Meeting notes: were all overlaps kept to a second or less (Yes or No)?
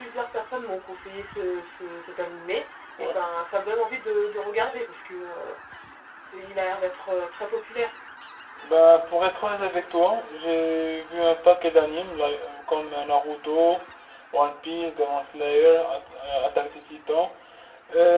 Yes